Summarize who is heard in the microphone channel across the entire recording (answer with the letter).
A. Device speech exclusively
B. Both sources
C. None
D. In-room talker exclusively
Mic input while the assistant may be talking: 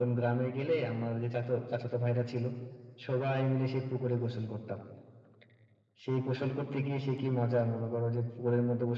A